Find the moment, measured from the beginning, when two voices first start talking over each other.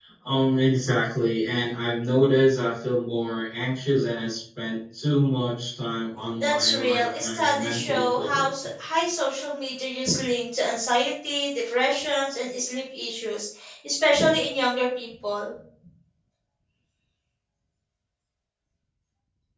6 s

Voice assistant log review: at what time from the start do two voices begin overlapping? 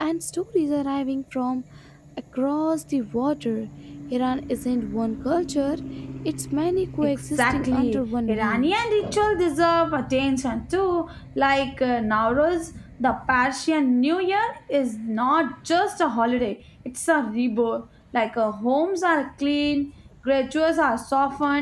7 s

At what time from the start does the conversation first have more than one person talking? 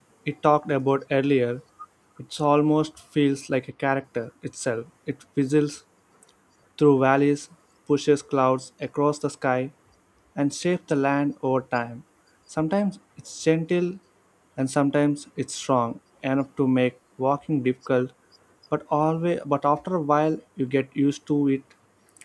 none

